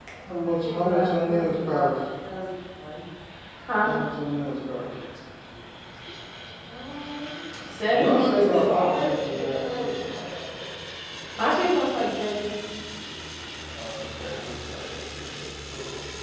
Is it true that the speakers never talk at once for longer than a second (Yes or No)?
No